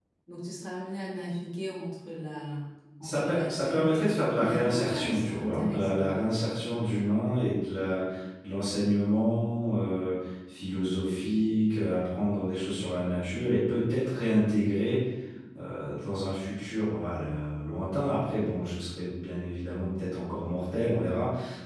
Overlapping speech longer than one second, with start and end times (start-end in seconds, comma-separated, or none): 3.0-6.1